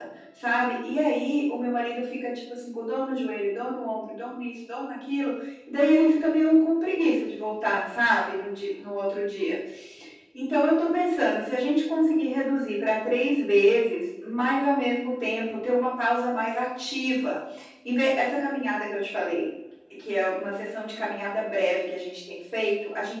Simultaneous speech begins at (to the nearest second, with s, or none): none